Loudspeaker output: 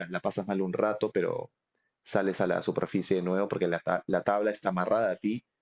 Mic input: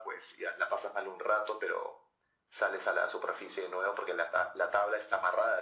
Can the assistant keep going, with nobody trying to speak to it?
Yes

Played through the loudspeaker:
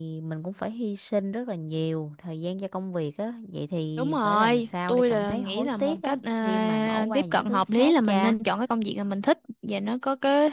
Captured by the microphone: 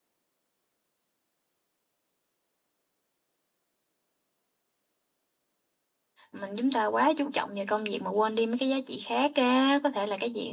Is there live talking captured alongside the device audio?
Yes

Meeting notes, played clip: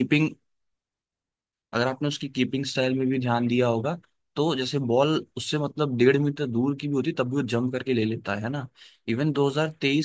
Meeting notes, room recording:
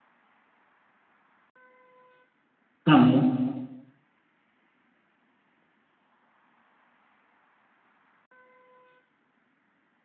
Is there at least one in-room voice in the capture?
Yes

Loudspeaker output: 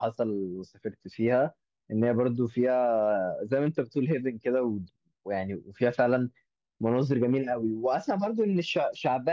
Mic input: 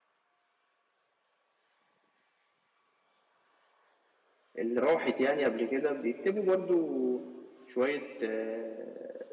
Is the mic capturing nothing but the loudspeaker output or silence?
No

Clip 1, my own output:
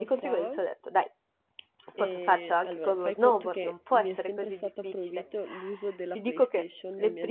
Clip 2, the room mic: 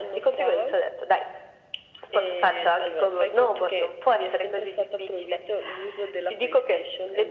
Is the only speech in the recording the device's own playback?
Yes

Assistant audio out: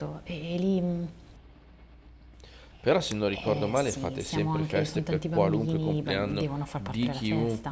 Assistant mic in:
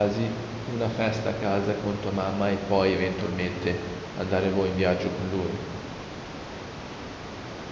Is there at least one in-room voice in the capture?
Yes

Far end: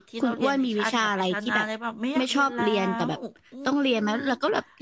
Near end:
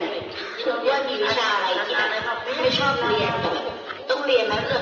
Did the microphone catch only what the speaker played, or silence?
Yes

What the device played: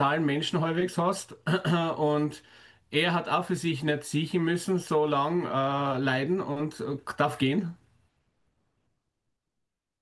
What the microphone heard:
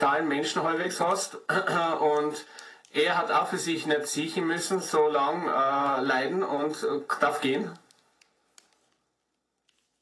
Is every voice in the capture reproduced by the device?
Yes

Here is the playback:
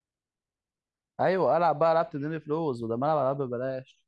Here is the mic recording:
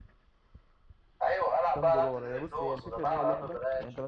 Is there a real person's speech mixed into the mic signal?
Yes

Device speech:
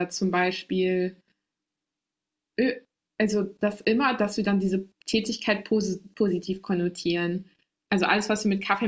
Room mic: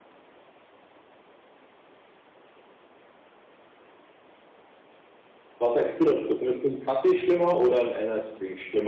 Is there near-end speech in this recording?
Yes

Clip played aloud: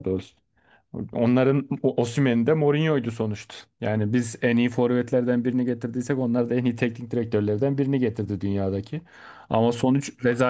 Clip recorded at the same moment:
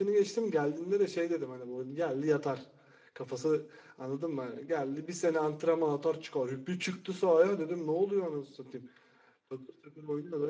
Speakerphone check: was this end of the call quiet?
No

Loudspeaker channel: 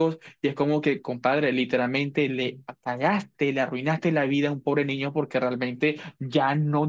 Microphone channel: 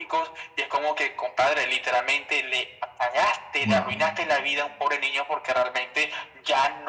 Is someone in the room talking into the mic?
Yes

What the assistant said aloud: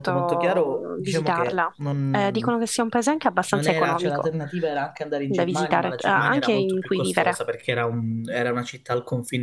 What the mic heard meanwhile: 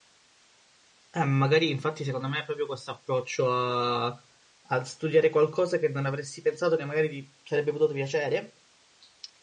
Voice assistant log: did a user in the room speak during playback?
Yes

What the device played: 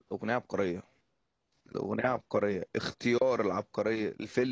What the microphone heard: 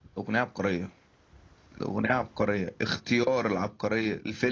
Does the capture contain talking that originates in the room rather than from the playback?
No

